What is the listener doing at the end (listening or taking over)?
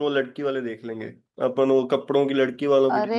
taking over